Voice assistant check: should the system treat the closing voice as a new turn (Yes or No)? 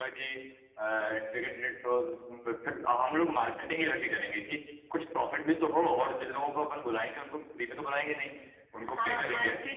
Yes